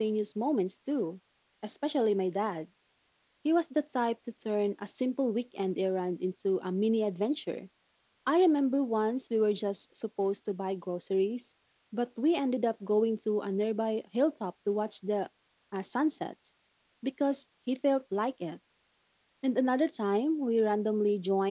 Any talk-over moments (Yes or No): No